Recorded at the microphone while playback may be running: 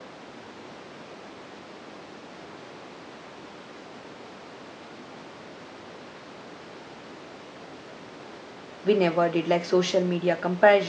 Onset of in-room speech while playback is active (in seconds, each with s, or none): 8.8 s